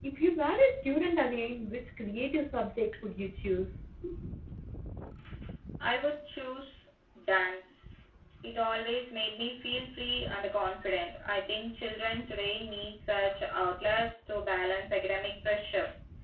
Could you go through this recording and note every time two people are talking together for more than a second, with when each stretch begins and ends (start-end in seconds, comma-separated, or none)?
none